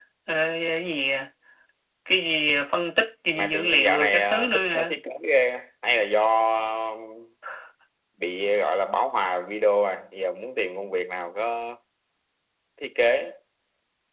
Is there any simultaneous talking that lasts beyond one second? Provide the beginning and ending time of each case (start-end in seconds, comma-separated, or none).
3.4-5.0